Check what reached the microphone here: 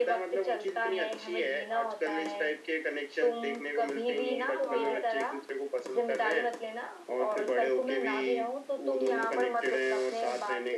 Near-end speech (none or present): present